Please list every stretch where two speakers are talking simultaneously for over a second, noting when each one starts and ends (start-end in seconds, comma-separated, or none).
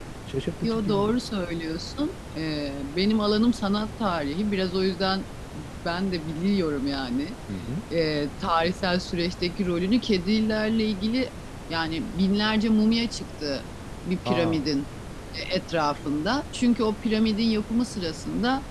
none